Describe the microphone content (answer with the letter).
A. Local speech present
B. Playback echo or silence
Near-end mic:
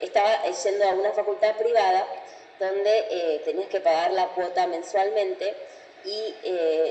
B